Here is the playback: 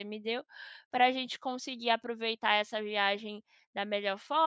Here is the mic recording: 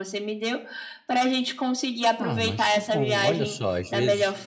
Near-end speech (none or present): present